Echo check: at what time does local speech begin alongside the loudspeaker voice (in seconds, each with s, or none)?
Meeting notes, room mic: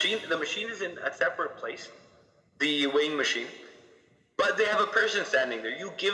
none